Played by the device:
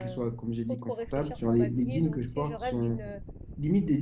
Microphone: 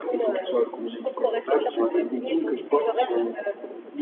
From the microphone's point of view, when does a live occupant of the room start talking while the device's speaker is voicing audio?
none

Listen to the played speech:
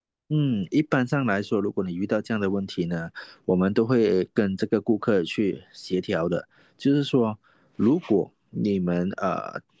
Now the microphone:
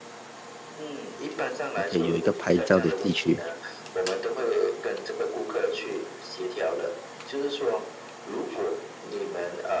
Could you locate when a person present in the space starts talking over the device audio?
2 s

